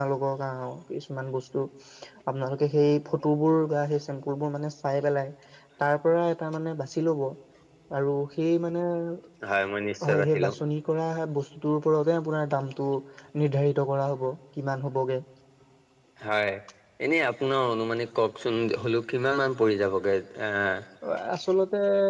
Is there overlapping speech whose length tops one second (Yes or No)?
No